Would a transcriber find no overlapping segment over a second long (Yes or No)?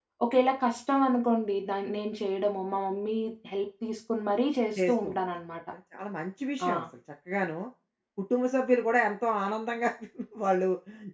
Yes